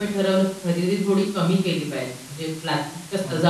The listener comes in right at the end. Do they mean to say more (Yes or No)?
No